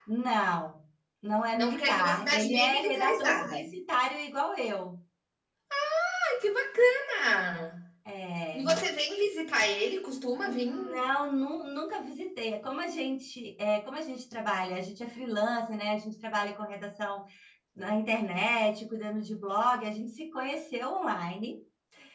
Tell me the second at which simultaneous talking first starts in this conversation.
2 s

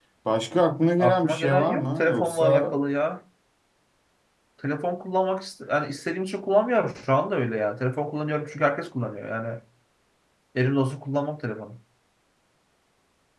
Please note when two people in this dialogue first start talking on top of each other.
1 s

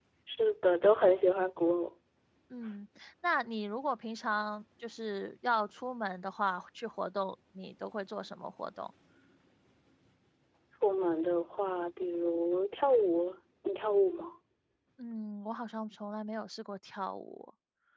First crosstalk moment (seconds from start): none

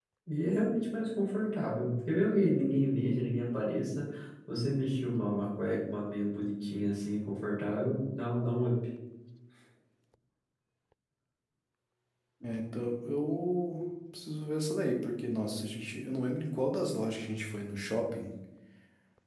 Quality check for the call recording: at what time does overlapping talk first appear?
none

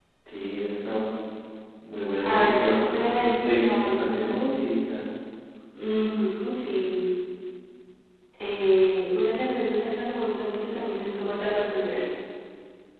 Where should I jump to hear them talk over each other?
2 s

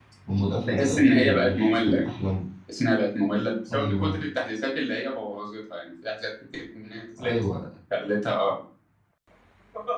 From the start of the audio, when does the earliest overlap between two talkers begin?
1 s

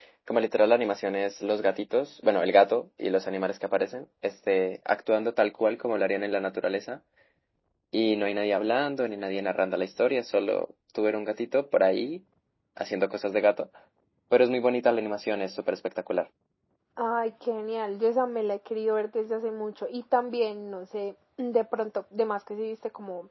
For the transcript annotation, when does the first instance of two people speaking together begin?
none

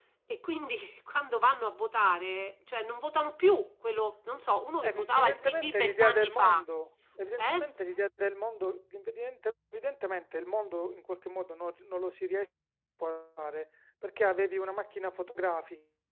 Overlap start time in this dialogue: 5 s

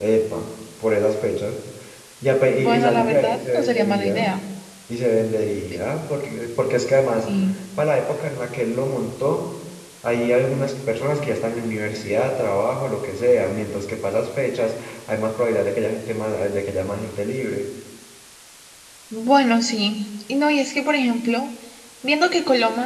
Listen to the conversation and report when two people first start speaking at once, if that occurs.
3 s

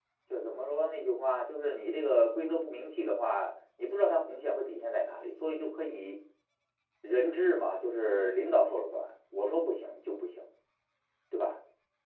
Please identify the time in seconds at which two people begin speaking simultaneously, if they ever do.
none

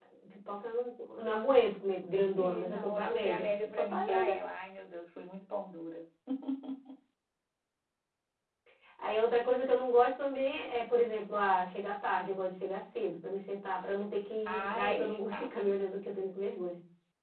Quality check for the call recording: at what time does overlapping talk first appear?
2 s

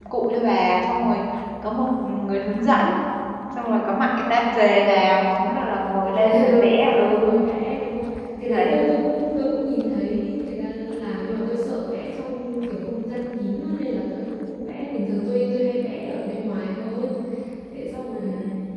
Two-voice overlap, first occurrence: 6 s

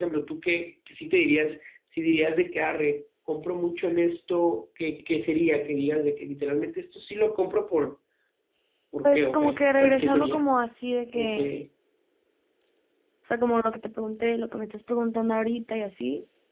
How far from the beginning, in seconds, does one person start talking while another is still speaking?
9 s

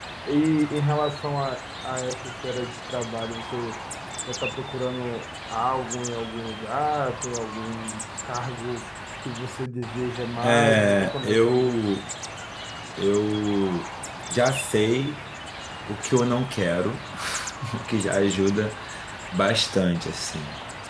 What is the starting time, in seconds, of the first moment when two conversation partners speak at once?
10 s

